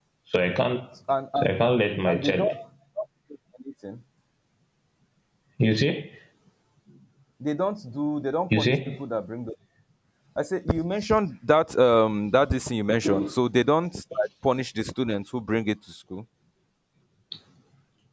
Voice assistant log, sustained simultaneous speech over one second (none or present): none